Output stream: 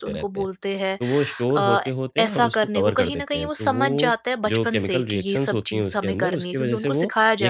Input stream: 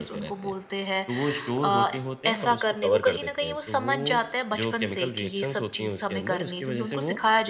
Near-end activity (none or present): none